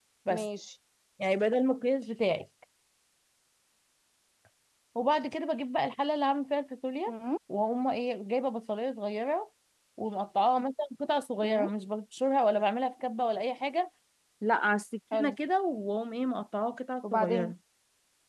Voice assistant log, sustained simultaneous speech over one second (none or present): none